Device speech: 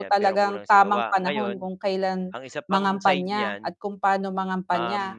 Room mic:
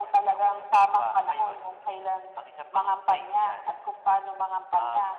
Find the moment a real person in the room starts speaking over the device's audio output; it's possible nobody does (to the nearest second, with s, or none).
none